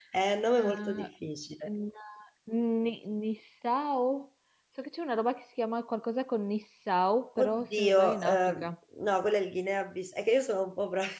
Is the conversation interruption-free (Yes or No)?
No